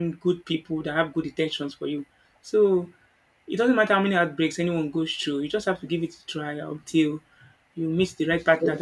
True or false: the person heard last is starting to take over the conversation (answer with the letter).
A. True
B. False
A